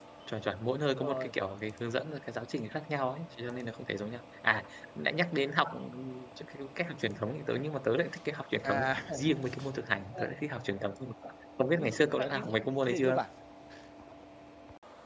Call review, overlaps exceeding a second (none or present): present